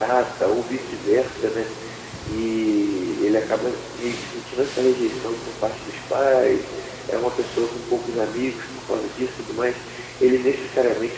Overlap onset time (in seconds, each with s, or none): none